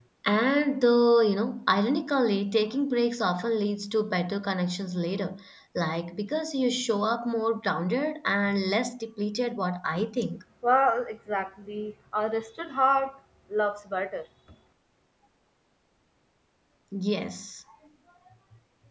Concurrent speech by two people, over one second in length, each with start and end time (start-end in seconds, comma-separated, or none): none